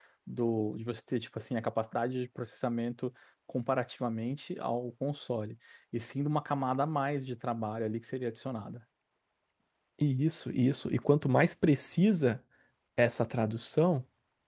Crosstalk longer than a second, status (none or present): none